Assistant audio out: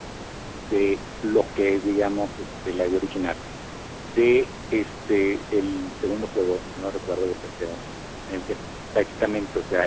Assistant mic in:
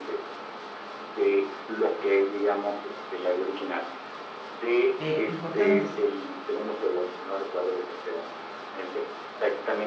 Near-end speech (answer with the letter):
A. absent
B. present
B